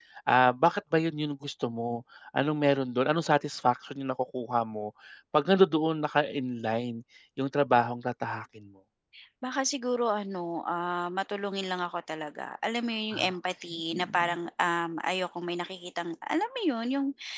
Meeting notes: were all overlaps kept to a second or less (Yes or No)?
Yes